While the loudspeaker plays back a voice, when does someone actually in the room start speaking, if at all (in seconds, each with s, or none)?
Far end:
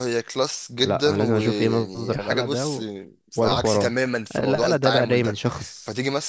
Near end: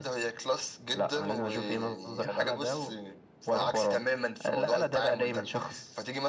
none